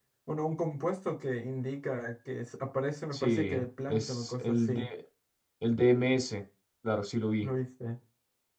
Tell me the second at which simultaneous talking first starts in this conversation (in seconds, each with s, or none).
3.1 s